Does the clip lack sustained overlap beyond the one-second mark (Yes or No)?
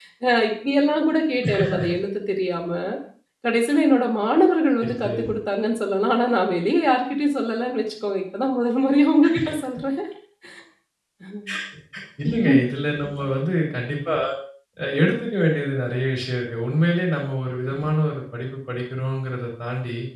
Yes